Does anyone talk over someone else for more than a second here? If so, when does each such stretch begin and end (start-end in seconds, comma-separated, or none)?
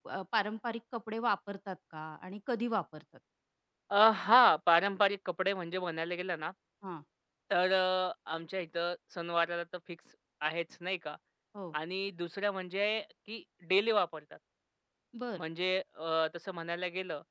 none